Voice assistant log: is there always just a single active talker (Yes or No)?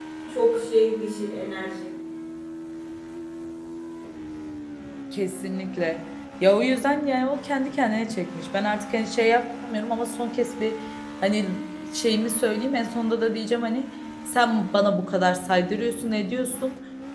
Yes